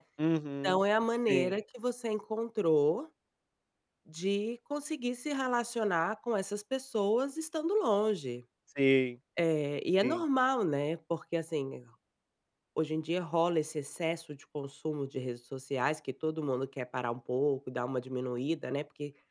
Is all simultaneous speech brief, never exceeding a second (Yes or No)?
Yes